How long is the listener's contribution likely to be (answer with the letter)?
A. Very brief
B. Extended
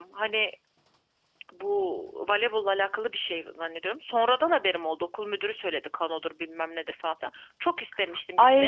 B